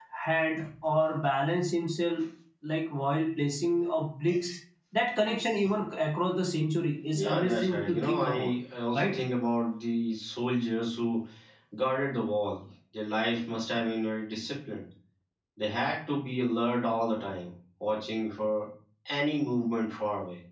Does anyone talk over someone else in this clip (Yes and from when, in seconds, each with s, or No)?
Yes, from 7.1 s